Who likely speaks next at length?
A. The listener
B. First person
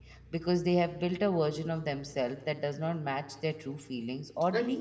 A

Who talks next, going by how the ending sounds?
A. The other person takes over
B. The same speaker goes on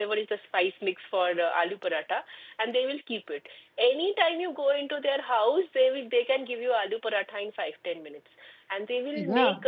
B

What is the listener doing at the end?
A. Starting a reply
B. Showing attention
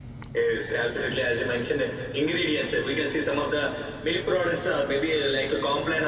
B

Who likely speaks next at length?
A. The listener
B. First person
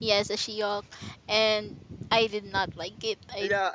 A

